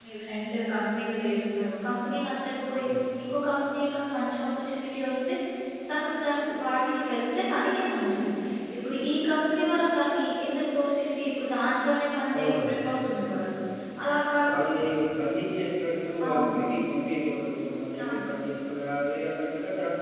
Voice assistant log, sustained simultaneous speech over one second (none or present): none